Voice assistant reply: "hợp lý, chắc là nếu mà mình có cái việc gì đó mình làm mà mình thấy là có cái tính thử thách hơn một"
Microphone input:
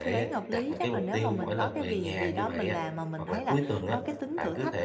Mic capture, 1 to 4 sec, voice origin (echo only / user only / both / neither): both